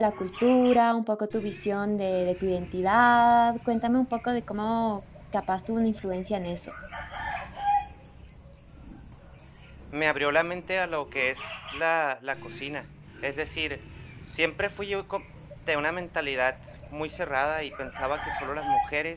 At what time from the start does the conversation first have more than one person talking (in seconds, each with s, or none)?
none